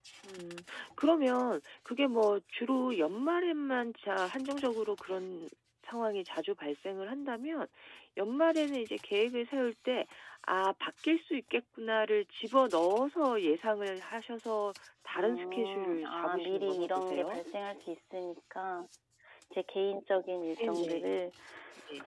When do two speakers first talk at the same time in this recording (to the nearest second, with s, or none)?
15 s